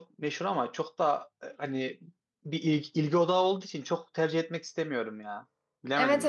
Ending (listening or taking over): taking over